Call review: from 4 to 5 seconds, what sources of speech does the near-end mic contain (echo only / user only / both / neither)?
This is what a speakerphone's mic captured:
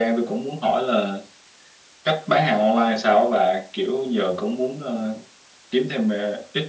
echo only